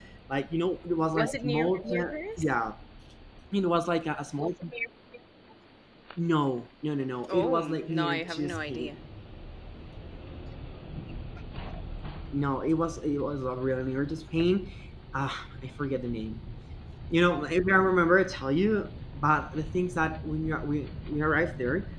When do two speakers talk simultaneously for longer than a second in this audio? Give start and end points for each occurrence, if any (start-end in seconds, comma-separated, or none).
1.1-2.4, 7.3-8.9